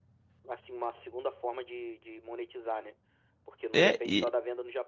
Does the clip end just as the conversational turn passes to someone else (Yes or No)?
No